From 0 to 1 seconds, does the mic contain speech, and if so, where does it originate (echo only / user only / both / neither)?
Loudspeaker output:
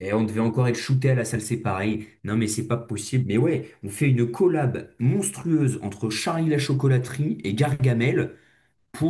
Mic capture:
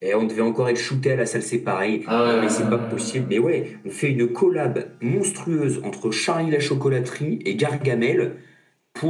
echo only